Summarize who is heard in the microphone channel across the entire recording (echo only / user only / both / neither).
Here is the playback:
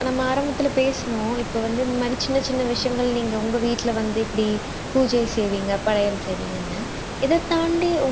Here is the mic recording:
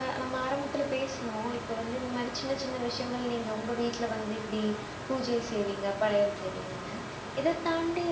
echo only